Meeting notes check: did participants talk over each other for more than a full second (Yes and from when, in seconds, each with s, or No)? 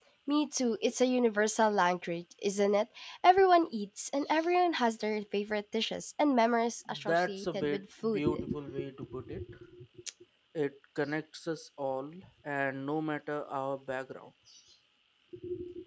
Yes, from 6.9 s